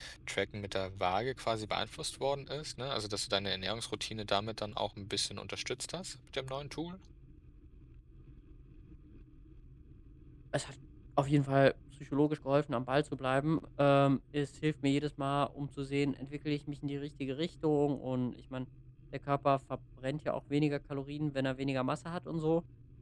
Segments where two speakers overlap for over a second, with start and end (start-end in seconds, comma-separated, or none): none